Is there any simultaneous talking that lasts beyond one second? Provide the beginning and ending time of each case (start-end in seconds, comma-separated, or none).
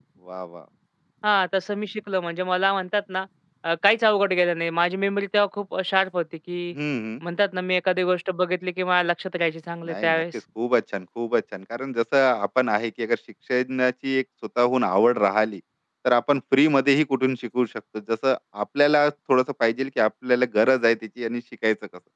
none